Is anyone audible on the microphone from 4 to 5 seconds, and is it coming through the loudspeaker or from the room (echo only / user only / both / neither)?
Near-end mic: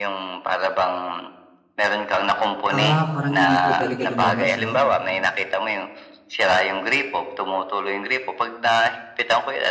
both